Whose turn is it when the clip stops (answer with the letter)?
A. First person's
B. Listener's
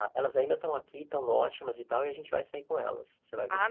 B